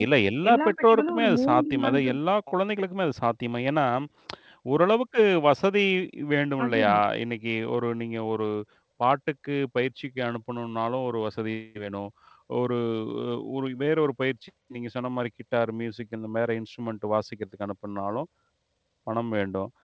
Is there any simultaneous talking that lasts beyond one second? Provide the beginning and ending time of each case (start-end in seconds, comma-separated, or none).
0.5-2.1